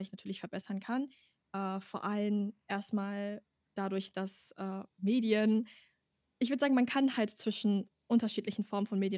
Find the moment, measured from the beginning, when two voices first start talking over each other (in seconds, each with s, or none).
none